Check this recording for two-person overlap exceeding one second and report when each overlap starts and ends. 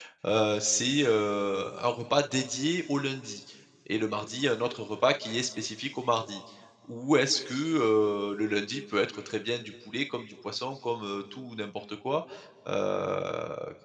none

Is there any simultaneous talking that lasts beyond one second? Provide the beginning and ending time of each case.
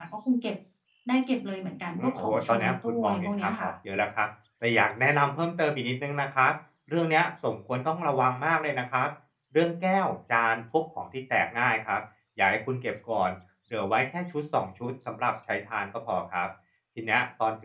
2.0-3.7

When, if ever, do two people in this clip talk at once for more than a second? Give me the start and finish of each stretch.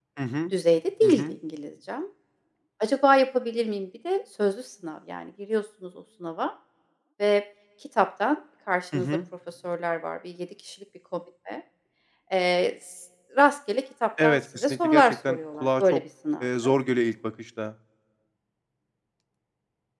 14.2-16.0

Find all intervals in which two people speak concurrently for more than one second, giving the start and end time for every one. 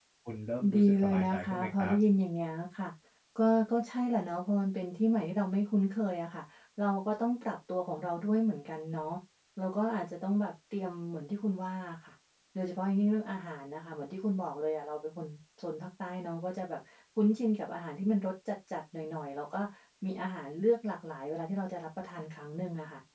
0.8-2.0

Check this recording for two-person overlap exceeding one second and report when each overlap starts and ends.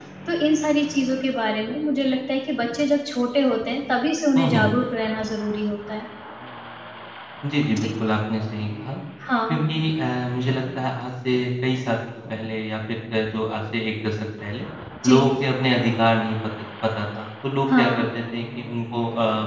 none

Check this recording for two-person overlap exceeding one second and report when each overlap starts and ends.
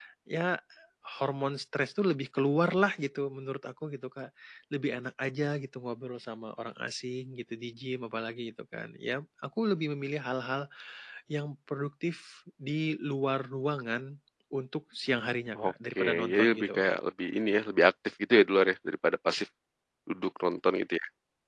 15.6-16.8

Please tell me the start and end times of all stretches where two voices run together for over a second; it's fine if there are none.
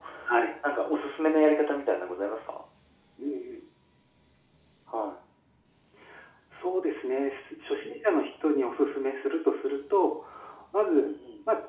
none

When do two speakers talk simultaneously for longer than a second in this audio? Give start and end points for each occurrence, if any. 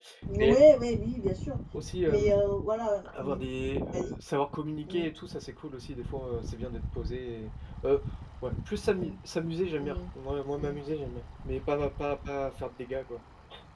none

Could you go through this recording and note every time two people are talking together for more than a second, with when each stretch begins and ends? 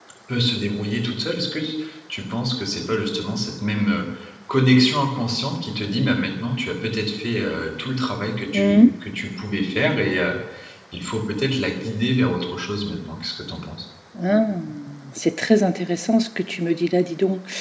none

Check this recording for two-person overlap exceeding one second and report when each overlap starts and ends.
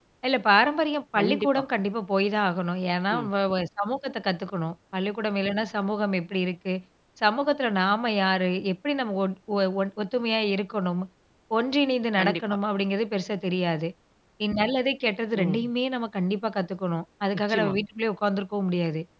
none

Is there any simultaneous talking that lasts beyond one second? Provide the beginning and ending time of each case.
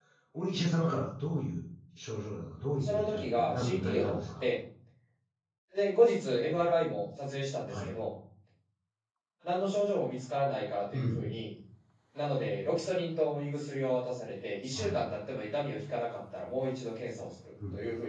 2.8-4.4

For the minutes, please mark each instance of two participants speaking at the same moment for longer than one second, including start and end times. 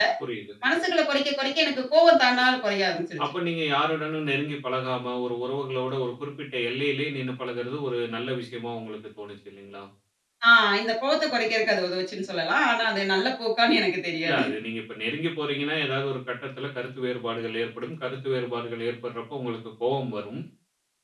none

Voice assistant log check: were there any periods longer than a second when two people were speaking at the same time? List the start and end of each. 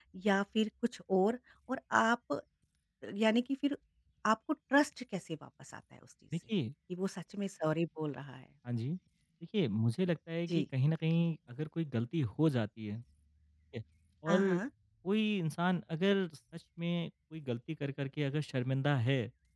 none

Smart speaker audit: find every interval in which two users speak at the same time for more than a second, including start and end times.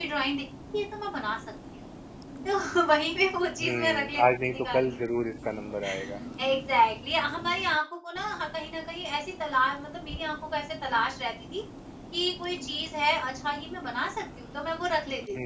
3.6-4.9

